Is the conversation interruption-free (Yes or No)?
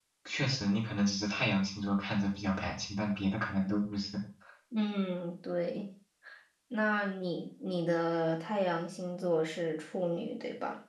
Yes